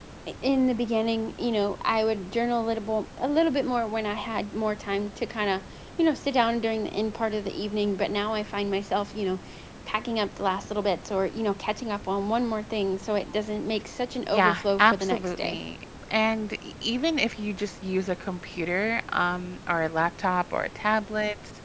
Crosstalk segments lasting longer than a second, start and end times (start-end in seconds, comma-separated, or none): 14.3-15.6